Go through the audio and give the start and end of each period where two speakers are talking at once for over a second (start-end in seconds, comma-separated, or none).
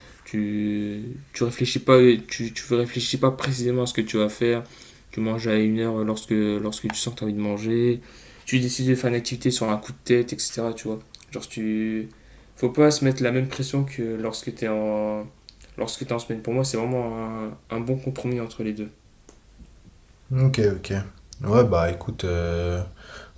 none